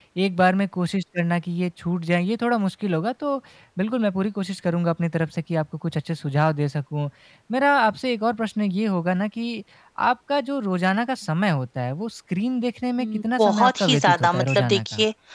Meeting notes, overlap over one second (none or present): present